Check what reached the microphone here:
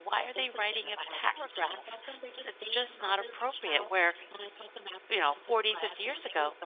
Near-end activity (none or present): present